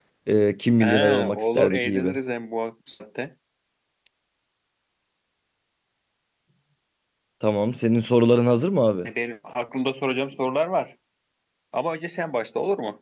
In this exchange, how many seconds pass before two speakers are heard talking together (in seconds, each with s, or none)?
0.8 s